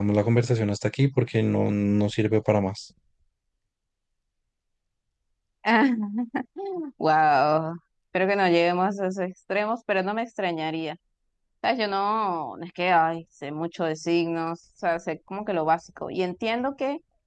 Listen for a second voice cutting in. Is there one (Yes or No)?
No